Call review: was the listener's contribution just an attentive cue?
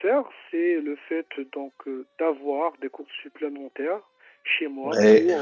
Yes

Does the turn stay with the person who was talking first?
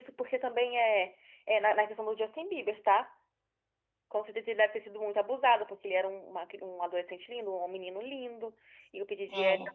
Yes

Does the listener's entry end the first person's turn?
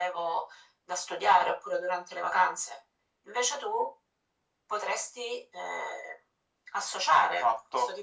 Yes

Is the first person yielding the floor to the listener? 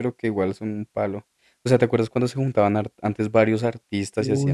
Yes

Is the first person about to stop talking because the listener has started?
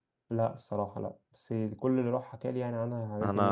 Yes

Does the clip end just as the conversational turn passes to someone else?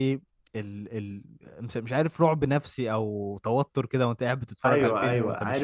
Yes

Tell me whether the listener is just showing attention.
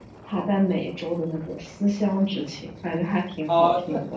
No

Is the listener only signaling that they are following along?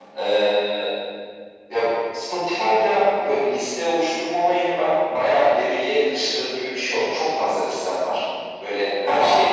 Yes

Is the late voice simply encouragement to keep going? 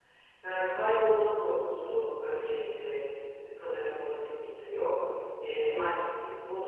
Yes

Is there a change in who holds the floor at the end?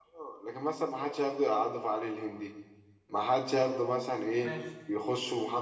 No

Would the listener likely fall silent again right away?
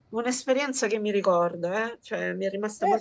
No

